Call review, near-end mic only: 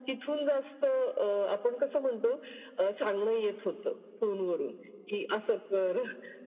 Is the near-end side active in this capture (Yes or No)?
No